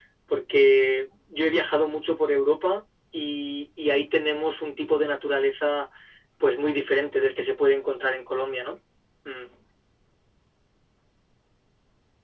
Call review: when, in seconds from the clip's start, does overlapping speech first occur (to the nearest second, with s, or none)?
none